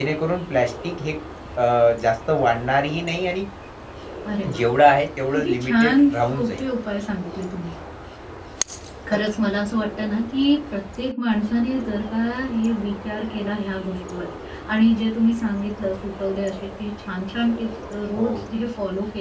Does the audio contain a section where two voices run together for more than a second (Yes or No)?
Yes